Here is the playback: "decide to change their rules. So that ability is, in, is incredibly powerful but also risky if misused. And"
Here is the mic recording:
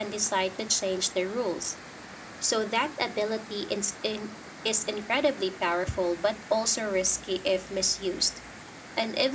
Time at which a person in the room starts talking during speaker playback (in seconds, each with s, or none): none